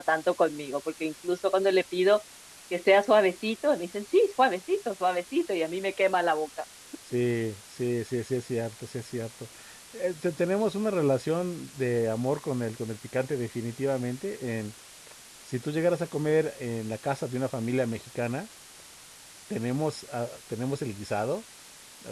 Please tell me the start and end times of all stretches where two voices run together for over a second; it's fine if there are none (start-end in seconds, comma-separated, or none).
none